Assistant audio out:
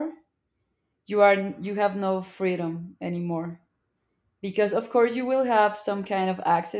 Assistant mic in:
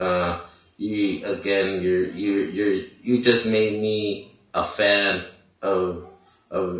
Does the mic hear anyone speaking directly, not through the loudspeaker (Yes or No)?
Yes